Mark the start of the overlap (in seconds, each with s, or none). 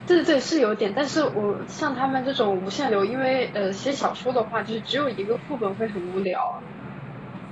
none